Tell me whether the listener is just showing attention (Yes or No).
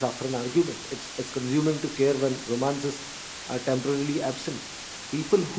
Yes